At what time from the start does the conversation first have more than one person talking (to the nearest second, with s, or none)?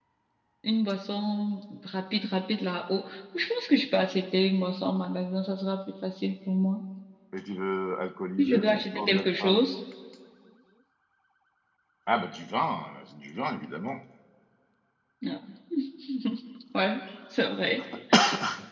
8 s